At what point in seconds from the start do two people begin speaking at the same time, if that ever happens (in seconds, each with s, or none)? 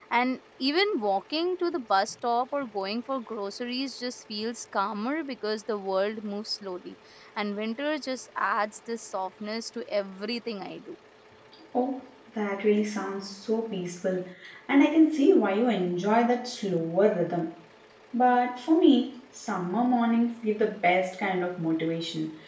none